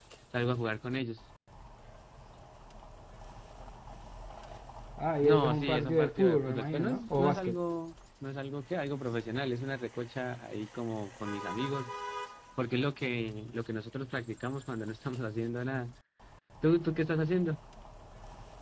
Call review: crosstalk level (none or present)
present